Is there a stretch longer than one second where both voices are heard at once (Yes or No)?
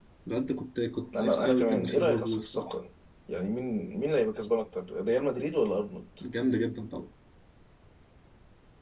Yes